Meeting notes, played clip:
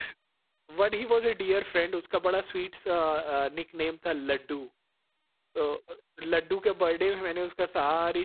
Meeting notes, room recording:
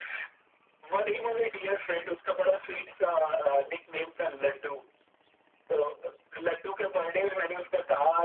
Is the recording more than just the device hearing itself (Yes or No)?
No